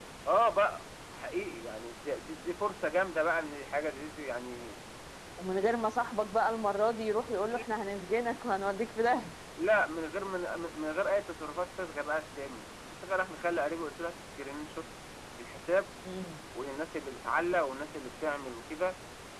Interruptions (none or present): none